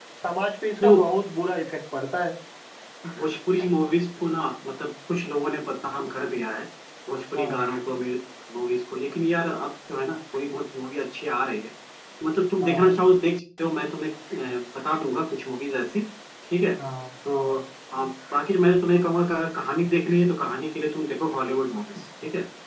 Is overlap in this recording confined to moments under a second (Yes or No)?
Yes